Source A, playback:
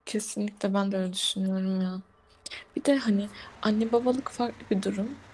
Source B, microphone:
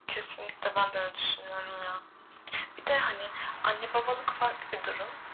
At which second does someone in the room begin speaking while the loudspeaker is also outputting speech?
none

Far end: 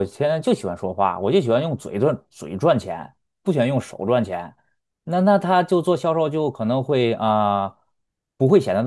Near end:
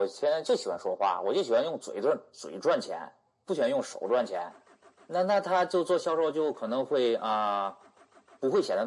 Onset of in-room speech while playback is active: none

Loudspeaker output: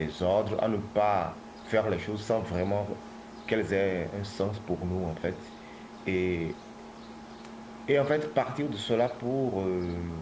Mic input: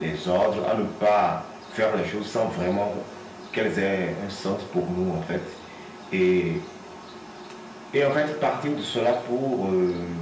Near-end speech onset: none

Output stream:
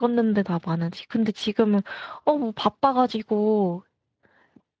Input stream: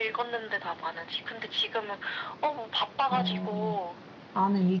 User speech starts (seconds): 3.1 s

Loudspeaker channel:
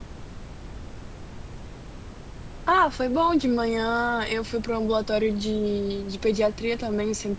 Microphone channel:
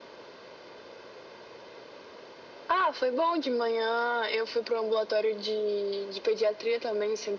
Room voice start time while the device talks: none

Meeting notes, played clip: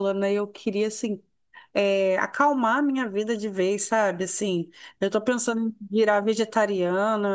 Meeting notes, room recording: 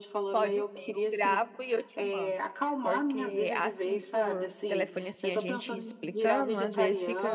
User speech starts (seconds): 0.3 s

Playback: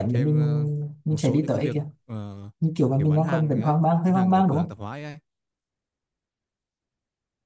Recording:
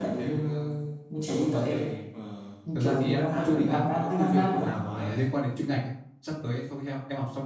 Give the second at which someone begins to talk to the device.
1.5 s

